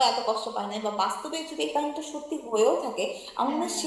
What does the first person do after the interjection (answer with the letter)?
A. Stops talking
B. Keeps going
B